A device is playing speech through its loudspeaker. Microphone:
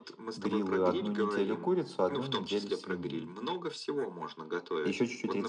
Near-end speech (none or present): present